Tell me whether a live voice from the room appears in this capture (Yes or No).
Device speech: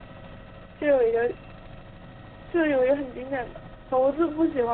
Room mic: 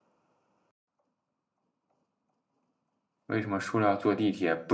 Yes